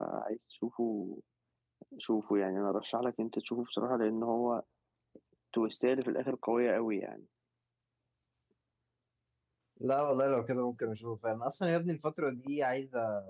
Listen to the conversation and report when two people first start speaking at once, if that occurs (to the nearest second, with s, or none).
none